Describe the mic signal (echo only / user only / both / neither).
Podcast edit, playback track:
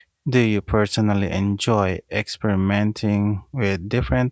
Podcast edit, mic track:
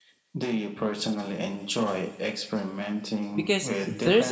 both